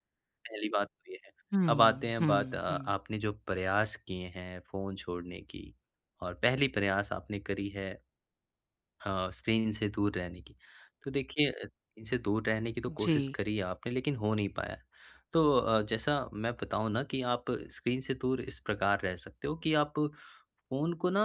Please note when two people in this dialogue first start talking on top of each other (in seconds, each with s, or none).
1.7 s